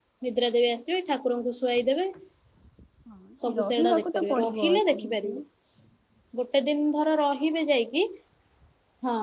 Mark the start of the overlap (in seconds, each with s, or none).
3.4 s